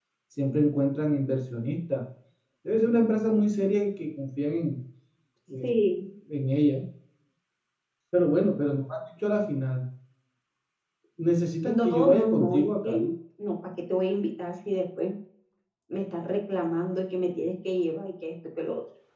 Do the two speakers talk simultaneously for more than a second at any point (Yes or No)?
Yes